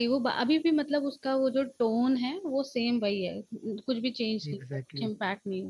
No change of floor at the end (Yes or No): No